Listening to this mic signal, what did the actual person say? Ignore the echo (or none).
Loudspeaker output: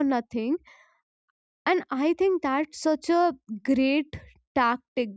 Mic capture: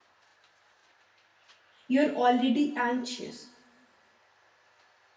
you're already anxious.